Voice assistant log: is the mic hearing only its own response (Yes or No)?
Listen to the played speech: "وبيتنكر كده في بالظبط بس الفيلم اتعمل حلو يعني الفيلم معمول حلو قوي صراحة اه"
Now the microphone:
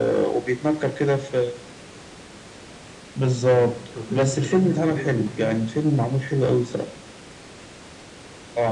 No